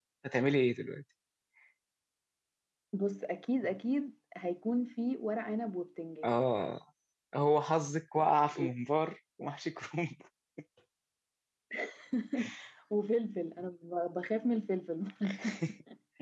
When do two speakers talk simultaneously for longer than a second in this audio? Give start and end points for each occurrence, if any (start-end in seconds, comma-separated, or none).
none